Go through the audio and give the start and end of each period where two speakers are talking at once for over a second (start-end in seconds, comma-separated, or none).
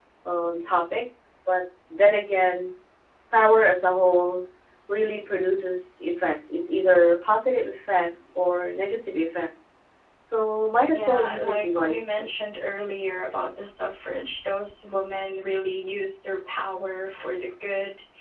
10.9-12.3